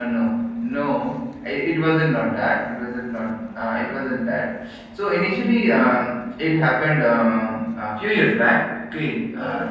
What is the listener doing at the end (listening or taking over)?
listening